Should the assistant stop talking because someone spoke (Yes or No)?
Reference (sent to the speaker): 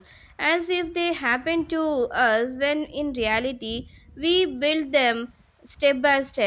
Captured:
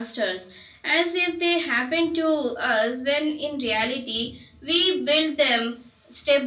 No